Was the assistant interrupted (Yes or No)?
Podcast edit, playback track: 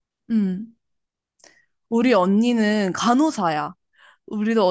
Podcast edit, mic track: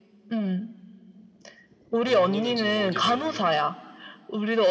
Yes